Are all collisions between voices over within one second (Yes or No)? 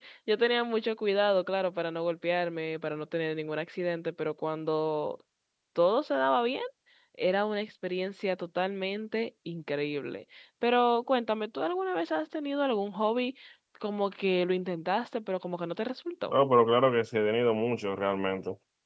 Yes